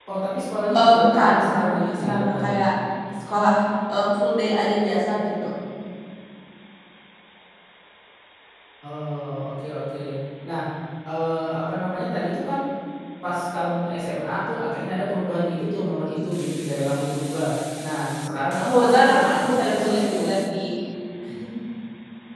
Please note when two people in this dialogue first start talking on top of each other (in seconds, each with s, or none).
0.8 s